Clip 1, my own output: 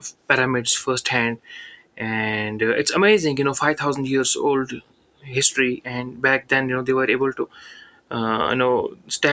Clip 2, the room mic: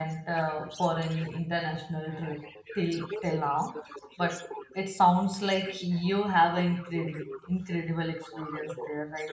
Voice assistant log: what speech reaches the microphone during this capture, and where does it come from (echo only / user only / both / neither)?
both